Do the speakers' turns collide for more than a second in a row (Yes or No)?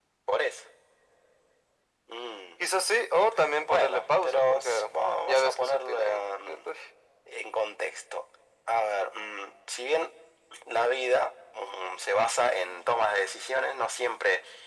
Yes